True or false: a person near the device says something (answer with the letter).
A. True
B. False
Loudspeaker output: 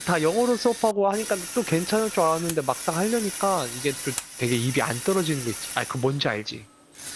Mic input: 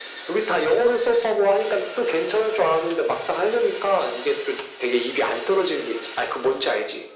B